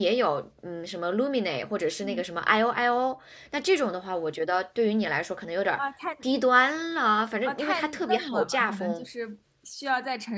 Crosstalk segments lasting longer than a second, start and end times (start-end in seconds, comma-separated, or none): 7.4-9.0